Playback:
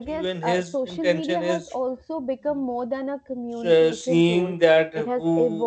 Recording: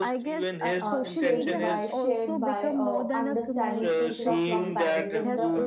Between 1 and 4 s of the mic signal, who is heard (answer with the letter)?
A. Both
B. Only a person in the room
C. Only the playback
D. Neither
A